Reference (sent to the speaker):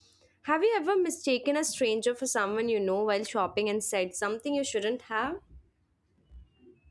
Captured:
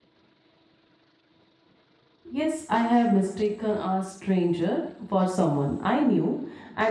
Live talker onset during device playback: 2 s

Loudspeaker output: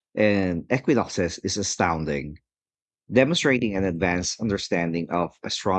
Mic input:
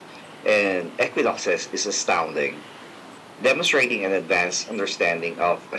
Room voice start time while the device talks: none

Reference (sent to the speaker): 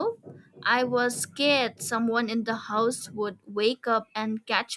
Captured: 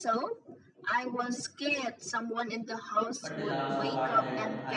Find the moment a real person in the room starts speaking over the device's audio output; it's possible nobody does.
3 s

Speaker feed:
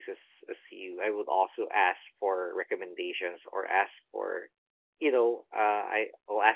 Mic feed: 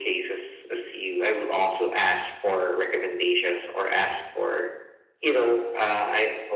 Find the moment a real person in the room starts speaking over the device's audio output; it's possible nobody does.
none

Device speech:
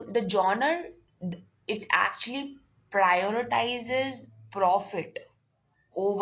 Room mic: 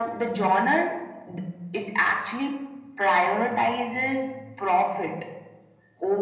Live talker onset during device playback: none

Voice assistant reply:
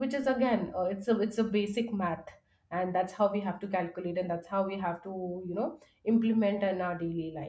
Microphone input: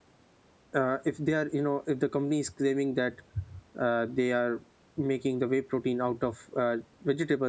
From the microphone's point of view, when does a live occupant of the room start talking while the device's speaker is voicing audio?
1 s

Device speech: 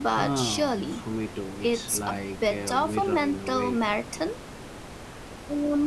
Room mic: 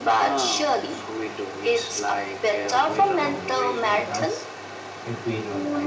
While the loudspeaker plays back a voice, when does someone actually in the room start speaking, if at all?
3 s

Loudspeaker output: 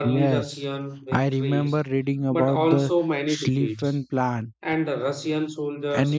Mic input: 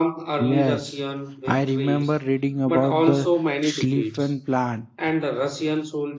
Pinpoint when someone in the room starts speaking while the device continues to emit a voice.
none

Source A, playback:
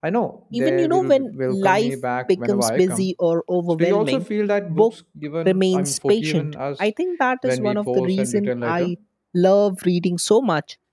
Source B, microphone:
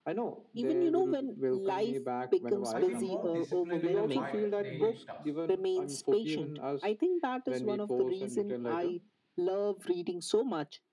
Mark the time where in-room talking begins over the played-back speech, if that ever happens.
3 s

